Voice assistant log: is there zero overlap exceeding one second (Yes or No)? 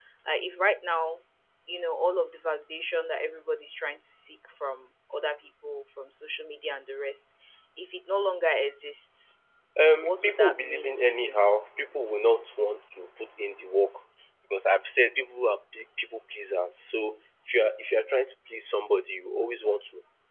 No